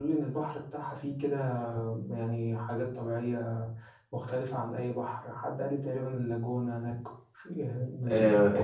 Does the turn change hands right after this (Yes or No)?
Yes